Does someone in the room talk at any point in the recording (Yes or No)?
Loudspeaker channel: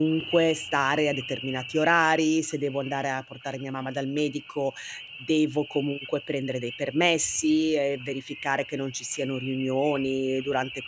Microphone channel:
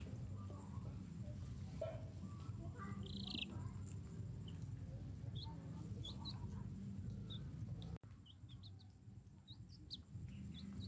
No